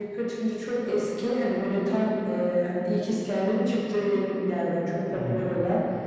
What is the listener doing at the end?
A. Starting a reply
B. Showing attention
B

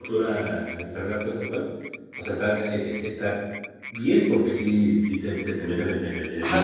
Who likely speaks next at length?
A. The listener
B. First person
A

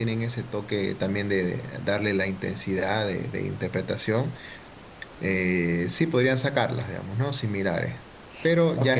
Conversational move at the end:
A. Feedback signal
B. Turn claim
B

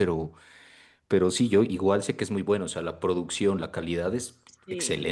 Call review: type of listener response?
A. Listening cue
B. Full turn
B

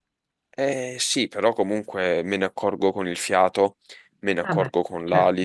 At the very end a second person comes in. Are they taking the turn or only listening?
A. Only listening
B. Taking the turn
A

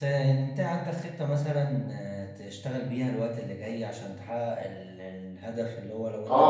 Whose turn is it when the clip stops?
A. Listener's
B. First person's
B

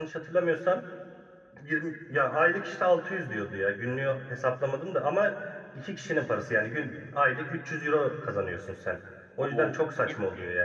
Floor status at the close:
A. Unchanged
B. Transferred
B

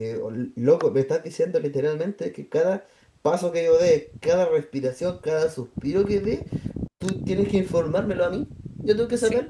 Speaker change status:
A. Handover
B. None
B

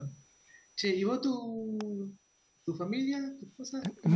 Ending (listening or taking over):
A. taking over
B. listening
A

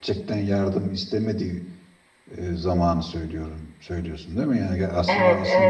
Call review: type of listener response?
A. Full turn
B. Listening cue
A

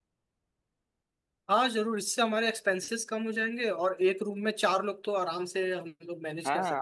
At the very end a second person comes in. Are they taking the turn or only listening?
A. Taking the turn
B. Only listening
A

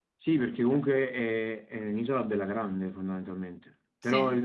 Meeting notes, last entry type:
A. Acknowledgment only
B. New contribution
A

